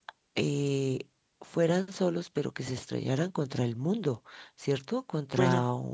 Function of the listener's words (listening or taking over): listening